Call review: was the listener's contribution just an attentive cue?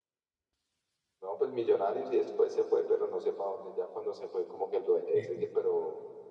Yes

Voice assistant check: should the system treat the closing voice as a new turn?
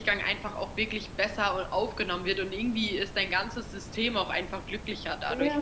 Yes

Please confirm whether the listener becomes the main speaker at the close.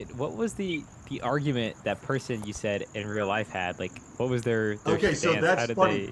Yes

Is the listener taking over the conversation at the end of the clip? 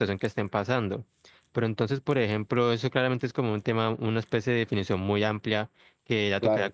No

